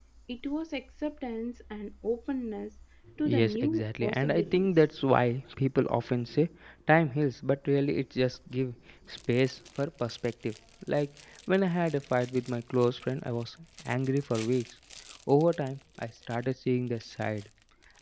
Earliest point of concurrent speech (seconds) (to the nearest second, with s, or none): 3 s